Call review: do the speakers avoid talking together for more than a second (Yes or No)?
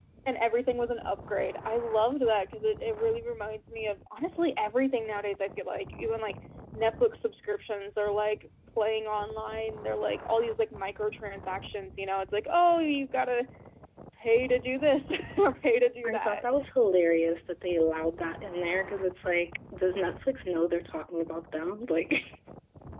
Yes